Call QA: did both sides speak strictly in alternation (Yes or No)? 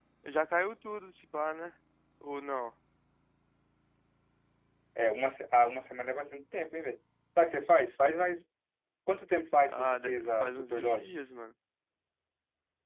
No